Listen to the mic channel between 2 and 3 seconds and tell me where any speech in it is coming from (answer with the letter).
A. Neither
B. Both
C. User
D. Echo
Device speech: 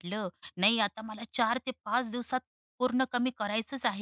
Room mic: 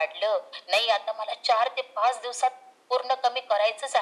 D